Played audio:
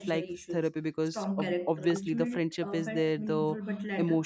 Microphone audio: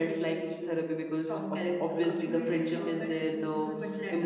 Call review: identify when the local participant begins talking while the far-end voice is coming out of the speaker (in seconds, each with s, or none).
none